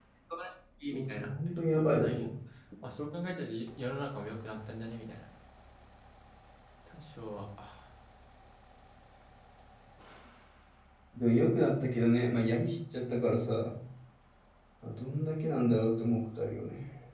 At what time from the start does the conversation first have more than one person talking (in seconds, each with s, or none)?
0.9 s